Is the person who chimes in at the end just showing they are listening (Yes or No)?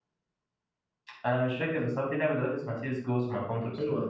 No